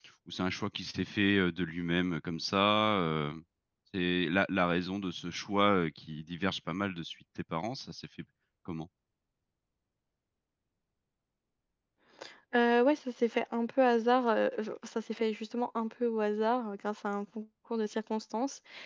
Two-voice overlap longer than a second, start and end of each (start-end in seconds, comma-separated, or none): none